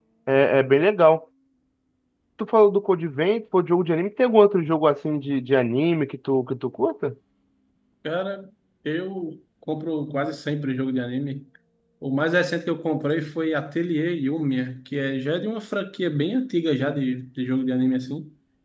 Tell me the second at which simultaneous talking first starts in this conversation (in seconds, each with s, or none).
none